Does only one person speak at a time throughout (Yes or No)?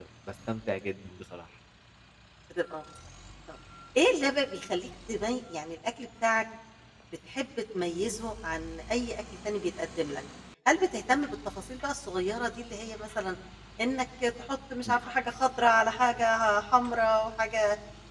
Yes